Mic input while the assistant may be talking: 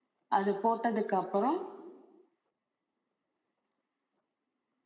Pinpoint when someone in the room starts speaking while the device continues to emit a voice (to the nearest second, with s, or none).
0 s